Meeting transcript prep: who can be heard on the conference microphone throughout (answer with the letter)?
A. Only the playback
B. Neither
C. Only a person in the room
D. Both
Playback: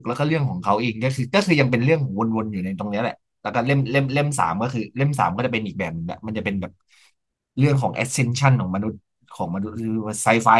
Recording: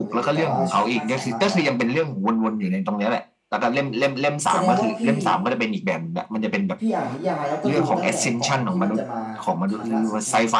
D